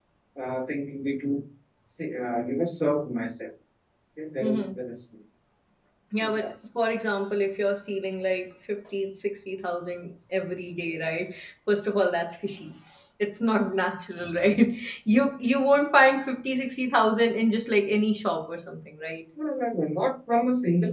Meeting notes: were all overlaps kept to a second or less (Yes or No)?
Yes